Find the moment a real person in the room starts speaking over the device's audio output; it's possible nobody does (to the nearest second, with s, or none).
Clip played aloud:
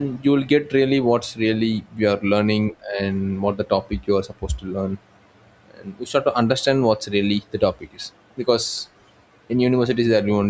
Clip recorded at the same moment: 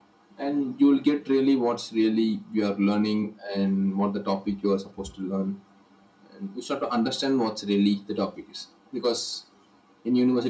none